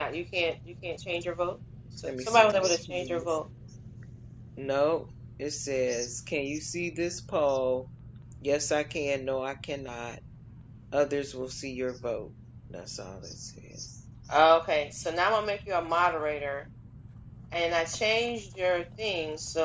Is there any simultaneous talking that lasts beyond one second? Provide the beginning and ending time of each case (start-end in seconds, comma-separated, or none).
2.0-3.4